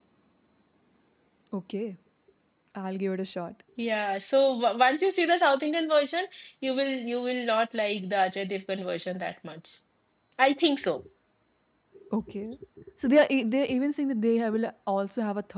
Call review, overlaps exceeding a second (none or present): none